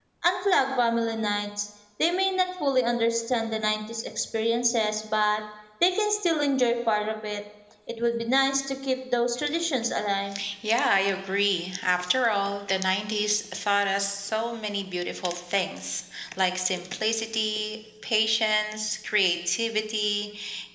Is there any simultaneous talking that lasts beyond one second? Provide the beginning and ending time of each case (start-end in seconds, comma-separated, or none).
none